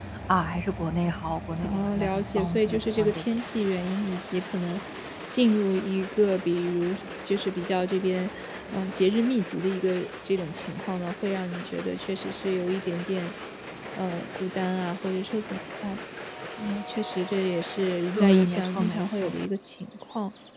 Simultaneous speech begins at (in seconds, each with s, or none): 1.6 s